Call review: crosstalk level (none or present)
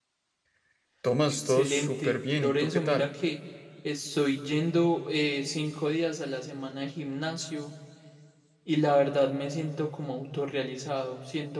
present